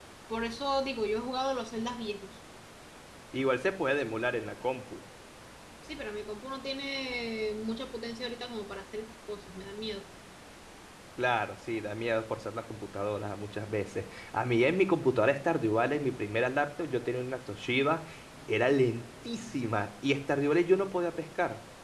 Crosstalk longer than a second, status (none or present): none